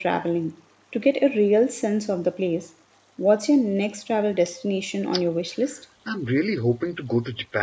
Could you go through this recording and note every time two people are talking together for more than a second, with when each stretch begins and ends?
none

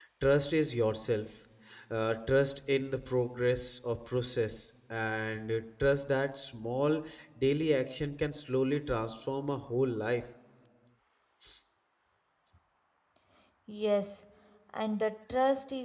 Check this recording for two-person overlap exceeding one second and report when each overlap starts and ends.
none

